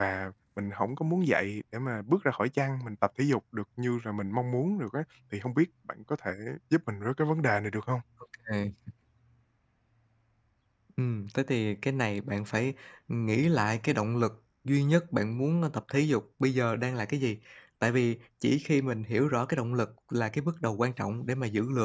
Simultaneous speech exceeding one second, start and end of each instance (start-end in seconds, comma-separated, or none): none